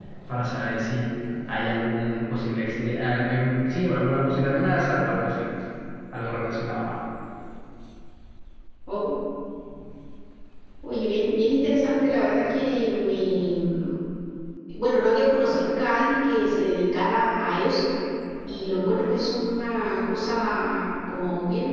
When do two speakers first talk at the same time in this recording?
none

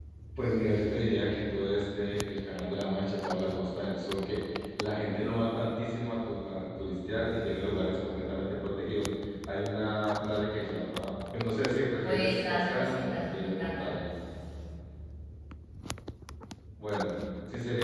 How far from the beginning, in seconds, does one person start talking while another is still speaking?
12 s

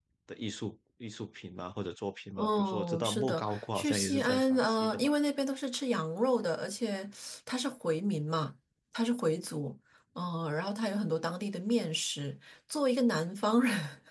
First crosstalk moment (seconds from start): 2 s

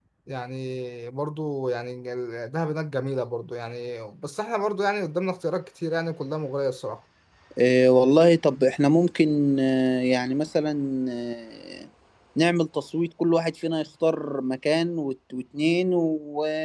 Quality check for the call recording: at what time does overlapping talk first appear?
none

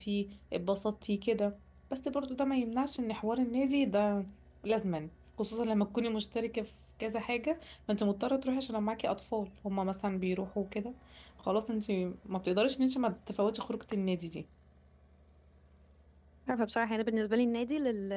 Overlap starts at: none

